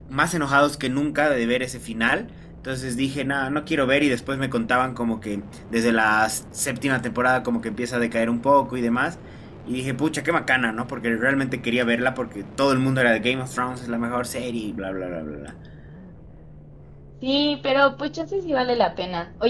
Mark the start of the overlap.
none

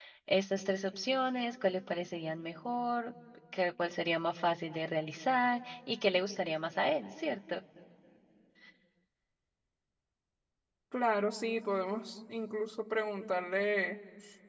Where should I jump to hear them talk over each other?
none

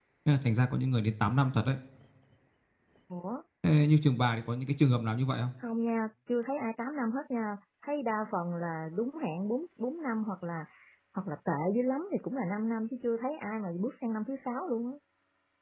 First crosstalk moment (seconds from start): none

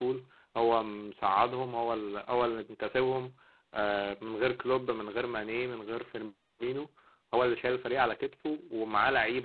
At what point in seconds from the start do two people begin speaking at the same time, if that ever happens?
none

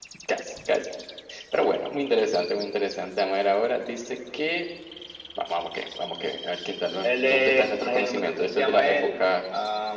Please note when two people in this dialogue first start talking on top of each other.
7.0 s

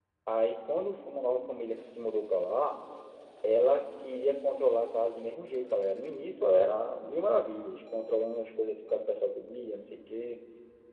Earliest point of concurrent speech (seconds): none

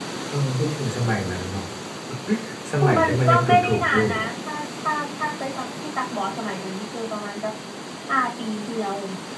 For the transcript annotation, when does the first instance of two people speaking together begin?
2.8 s

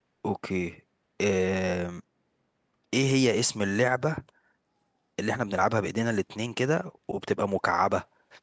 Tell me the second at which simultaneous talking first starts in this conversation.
none

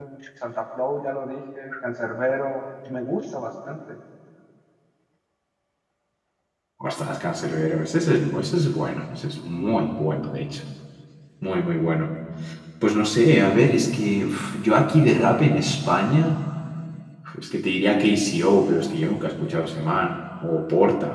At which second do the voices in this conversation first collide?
none

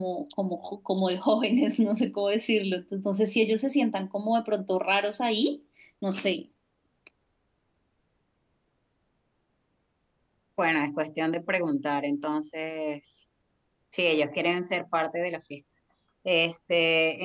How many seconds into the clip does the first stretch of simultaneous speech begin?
none

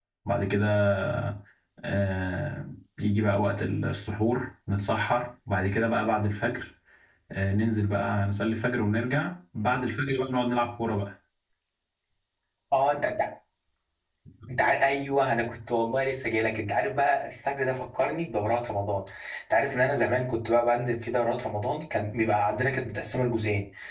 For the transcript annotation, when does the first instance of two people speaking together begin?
none

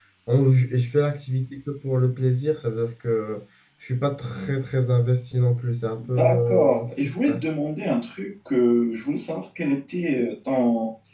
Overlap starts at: 6.0 s

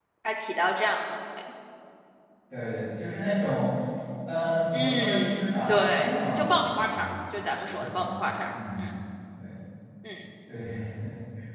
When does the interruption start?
4.7 s

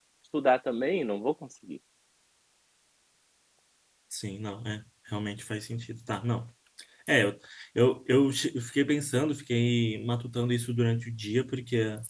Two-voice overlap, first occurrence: none

